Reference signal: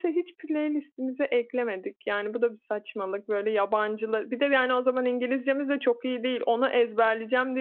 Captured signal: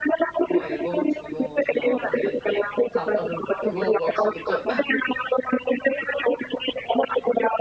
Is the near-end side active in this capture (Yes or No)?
Yes